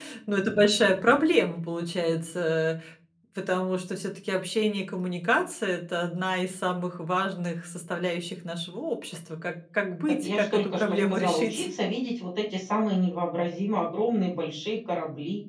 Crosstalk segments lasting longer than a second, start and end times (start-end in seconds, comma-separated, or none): 10.0-11.7